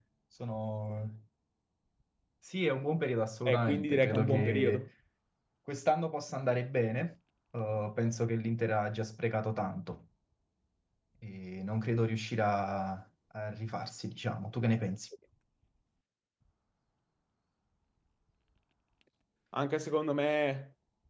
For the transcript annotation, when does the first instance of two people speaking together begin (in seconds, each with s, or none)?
3.5 s